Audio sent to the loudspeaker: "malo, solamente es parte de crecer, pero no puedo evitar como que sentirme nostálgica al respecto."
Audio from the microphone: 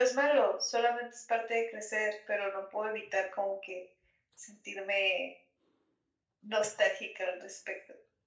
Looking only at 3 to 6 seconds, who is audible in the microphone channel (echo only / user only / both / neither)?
echo only